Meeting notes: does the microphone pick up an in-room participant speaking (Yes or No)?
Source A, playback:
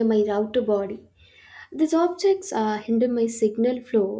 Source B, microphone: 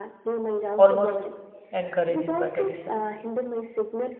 Yes